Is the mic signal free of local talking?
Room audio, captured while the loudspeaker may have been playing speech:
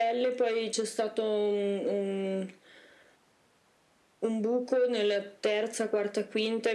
Yes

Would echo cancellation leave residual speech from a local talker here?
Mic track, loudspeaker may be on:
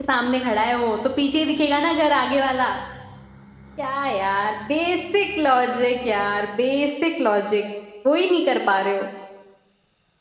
Yes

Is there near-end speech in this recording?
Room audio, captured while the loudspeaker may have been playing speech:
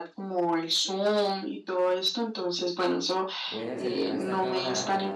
Yes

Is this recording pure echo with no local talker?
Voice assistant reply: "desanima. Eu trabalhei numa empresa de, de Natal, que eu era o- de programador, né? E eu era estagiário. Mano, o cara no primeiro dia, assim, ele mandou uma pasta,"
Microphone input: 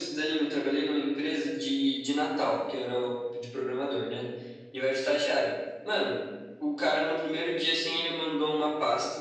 Yes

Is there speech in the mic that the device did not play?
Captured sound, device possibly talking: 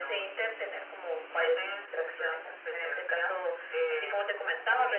No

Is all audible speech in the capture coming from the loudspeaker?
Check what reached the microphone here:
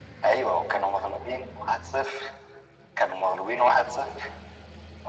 Yes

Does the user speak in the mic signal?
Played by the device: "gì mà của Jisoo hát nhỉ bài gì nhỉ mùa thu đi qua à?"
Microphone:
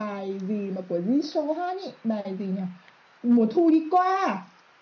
No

